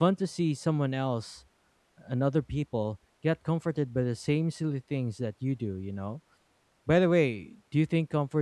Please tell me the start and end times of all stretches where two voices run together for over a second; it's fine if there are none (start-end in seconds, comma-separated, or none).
none